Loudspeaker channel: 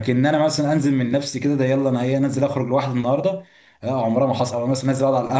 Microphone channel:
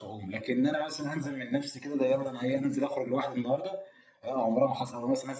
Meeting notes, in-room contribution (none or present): none